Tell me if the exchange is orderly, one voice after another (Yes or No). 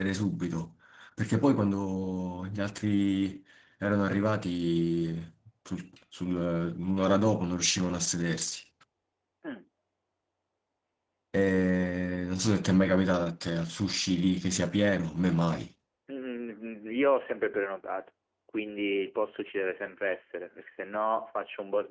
Yes